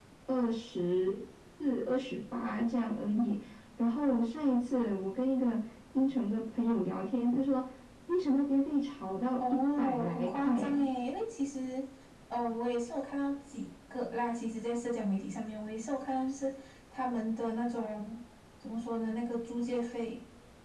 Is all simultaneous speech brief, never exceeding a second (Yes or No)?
No